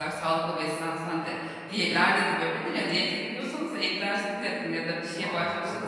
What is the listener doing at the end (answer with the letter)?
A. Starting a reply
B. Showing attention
B